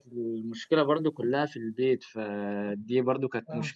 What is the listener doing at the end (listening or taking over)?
listening